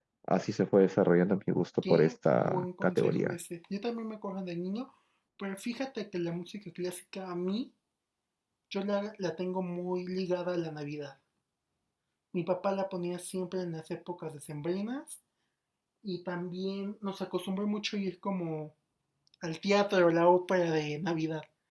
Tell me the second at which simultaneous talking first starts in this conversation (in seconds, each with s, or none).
1.8 s